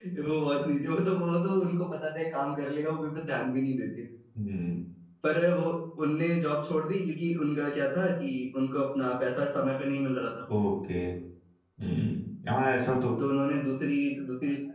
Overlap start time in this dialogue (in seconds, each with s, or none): none